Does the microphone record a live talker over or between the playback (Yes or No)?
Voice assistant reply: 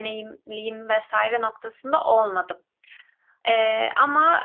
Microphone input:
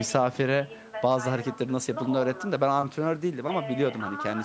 Yes